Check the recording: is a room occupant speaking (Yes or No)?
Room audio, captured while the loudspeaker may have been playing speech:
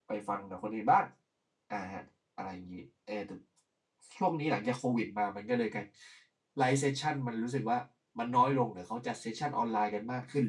Yes